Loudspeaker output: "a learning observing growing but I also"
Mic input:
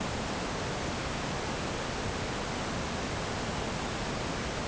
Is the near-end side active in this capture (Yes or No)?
No